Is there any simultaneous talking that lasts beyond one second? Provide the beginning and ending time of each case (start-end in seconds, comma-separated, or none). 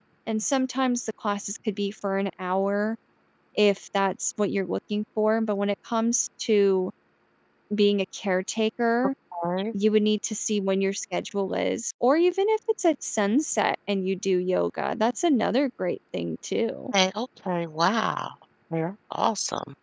none